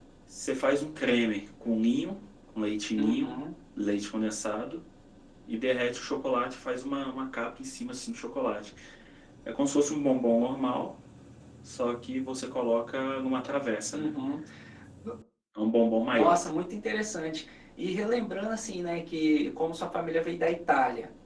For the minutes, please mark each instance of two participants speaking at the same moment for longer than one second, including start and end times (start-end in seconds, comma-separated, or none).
none